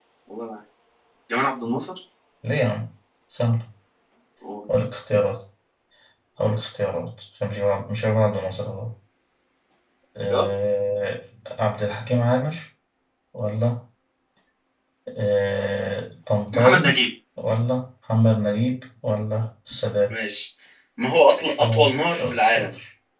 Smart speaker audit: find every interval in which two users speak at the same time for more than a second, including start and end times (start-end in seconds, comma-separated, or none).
21.4-22.7